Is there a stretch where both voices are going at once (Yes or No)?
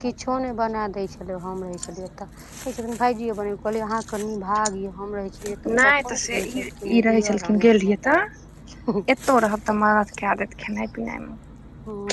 Yes